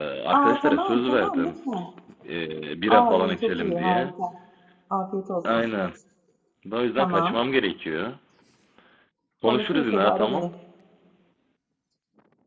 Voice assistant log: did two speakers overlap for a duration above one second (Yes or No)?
Yes